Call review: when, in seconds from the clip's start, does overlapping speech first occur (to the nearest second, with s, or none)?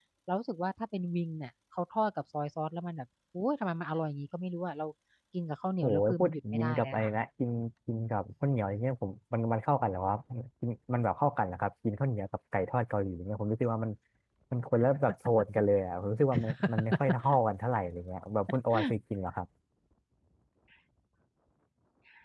6 s